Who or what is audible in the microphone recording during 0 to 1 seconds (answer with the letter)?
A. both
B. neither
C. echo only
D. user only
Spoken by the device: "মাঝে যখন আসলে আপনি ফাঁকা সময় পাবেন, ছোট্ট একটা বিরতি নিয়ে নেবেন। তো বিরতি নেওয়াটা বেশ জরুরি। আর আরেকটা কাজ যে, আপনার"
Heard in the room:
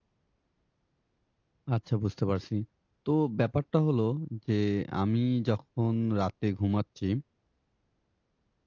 B